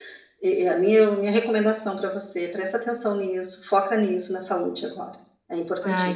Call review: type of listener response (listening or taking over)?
taking over